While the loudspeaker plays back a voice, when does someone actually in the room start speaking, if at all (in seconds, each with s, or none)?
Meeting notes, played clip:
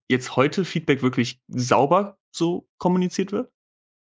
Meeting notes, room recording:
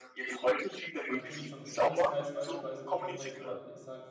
1.1 s